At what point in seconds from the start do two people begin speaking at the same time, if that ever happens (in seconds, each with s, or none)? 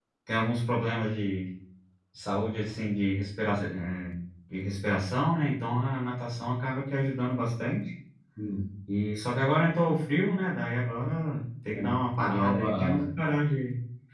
11.7 s